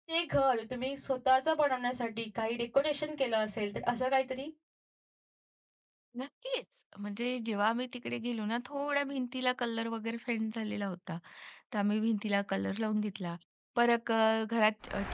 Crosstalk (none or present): none